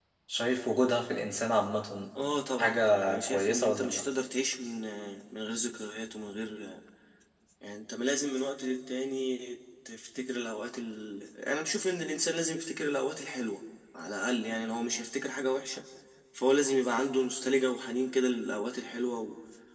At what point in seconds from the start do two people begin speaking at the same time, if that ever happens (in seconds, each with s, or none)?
2.6 s